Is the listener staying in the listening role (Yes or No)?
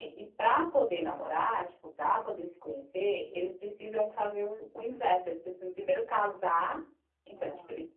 Yes